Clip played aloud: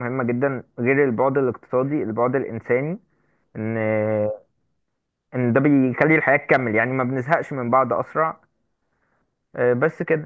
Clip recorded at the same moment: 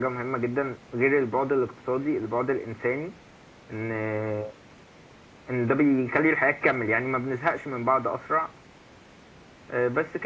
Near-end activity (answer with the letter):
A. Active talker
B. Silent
B